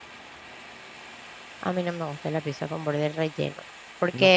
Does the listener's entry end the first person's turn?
No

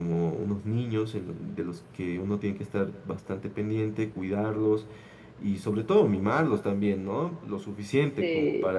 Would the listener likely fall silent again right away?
Yes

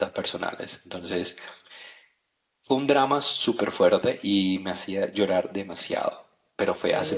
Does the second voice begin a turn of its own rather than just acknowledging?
Yes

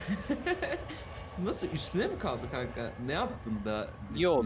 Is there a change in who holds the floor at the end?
Yes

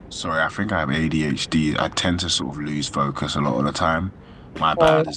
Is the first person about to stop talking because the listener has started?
No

